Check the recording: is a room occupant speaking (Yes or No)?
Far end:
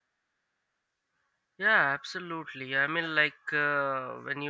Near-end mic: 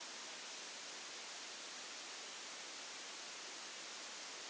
No